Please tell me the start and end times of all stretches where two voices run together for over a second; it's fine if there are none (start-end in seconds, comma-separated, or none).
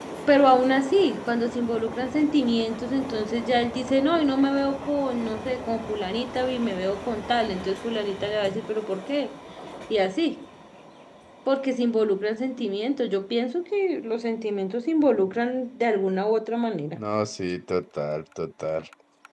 none